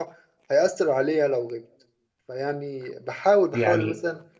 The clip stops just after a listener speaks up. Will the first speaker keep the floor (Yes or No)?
Yes